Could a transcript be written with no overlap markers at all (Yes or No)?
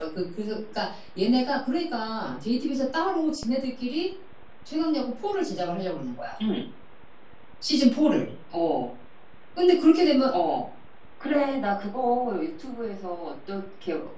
Yes